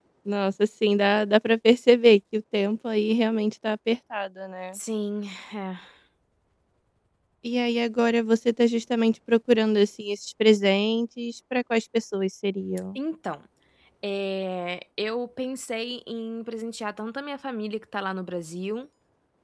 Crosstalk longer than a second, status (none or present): none